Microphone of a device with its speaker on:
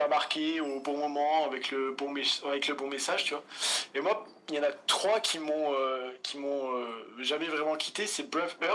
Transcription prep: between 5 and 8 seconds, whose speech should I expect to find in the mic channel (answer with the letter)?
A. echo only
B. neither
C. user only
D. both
A